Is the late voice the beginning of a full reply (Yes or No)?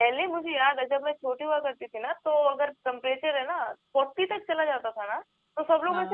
No